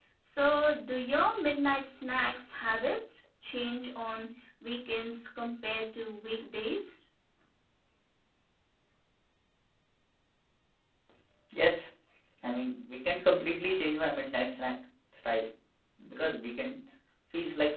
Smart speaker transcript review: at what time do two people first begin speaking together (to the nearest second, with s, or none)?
none